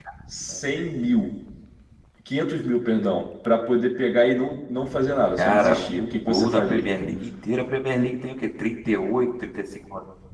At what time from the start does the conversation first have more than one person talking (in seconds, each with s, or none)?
5.4 s